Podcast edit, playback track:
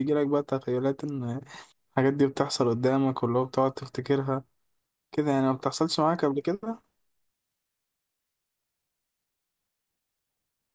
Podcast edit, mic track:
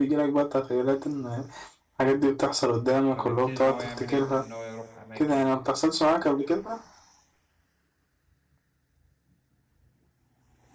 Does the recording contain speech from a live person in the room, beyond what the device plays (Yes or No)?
Yes